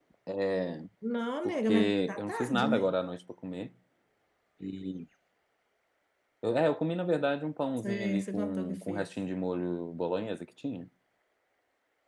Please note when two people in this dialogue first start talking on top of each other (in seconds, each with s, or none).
1.4 s